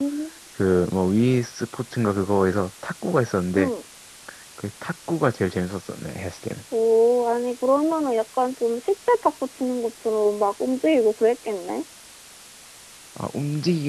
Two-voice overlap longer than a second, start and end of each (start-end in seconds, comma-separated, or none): none